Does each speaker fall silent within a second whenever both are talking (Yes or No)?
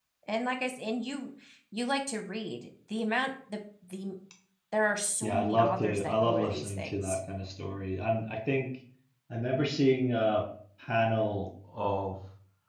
No